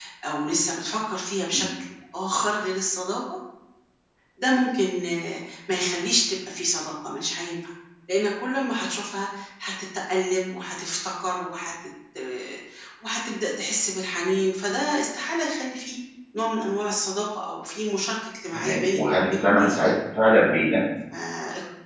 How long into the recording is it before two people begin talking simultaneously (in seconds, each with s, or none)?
18.5 s